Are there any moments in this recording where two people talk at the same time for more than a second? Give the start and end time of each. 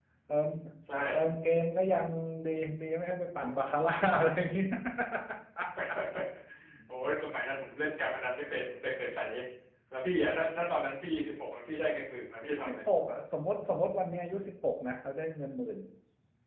none

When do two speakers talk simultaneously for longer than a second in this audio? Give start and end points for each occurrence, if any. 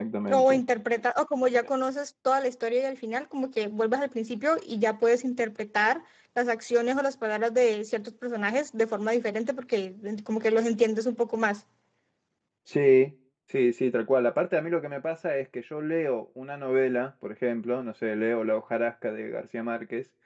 none

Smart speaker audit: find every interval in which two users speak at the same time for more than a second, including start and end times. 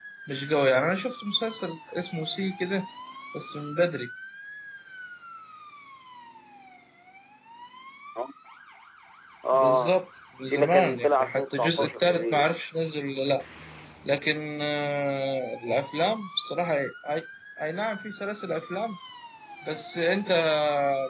10.4-12.4

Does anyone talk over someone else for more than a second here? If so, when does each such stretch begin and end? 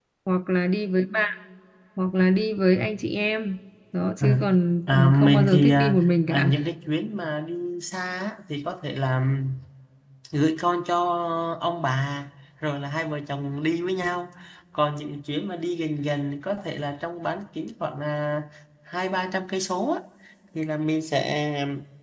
4.9-6.5

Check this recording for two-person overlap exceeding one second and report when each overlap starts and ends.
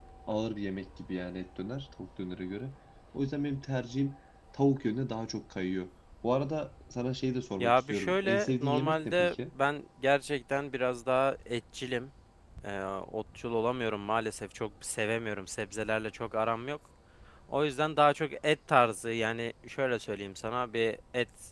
7.6-9.3

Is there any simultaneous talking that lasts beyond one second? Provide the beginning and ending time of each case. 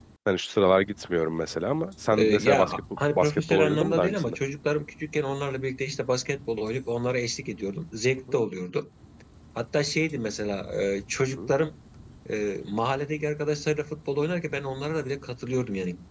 2.1-4.3

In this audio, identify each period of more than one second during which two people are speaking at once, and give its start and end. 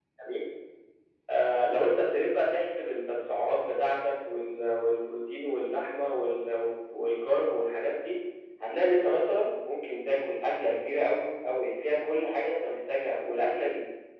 none

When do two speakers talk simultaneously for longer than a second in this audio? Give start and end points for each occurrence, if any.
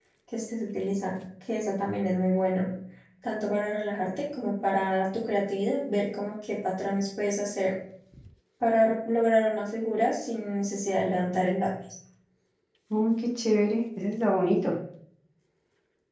none

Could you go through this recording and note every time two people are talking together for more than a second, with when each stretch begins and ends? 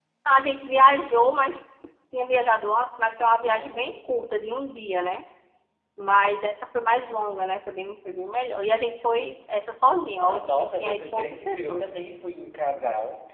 10.2-11.8

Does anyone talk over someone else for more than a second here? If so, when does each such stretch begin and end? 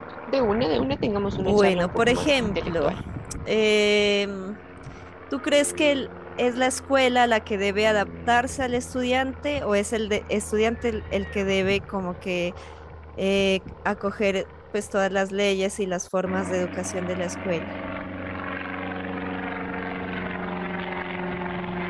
1.4-2.9

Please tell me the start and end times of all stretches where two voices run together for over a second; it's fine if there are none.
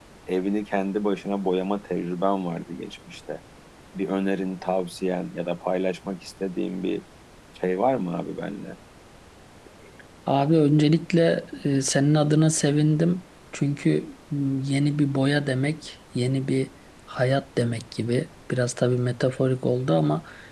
none

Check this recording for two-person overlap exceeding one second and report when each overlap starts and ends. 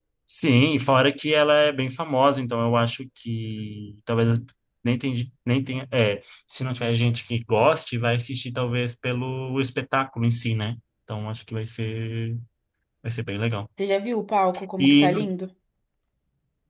none

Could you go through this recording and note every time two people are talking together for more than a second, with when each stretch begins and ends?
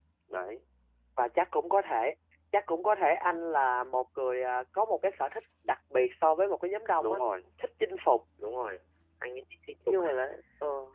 none

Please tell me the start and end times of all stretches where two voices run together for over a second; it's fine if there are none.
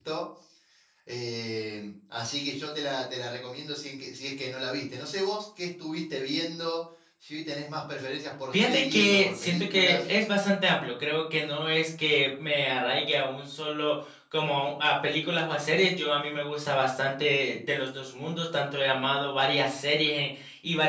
8.5-10.1

